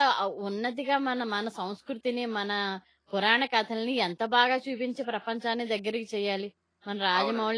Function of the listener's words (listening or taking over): taking over